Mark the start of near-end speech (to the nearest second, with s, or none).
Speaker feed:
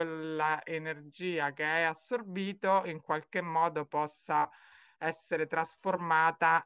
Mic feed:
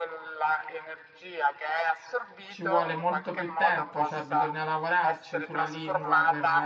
2 s